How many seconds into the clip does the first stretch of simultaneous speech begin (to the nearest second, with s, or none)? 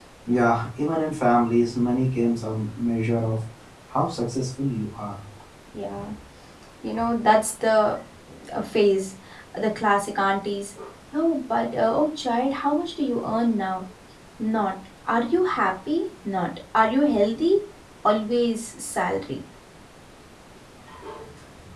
none